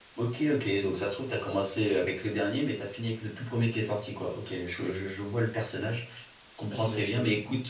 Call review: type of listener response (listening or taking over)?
listening